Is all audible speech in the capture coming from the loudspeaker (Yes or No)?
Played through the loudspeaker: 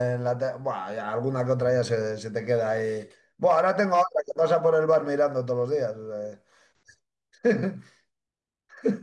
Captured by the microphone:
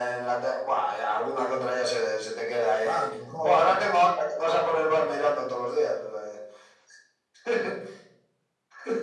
No